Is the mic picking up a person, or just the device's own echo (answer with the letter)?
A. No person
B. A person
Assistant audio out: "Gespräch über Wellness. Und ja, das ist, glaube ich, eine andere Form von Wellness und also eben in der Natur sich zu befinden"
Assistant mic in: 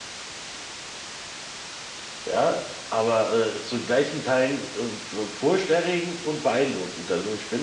B